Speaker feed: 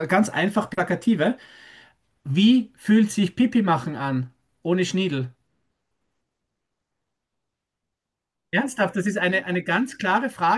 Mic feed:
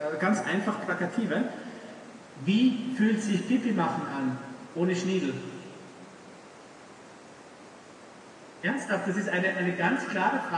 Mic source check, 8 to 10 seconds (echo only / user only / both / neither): echo only